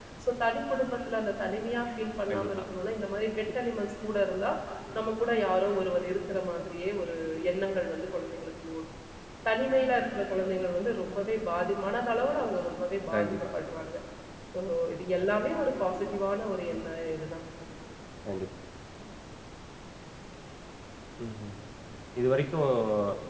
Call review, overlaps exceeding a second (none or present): none